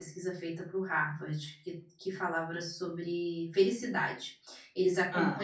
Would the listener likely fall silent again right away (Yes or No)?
Yes